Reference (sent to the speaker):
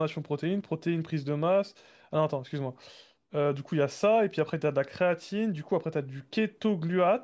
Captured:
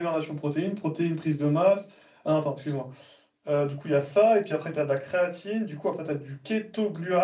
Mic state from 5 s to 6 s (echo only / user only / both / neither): echo only